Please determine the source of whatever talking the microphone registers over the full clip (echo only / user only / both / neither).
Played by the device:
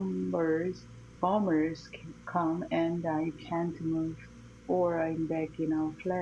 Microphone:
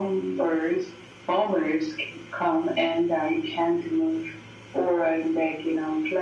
echo only